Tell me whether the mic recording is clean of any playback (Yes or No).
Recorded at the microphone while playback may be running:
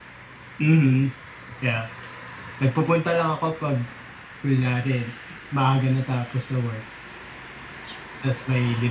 Yes